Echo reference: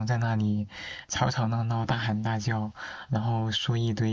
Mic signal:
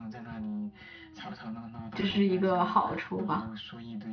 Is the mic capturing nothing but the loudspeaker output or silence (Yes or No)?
No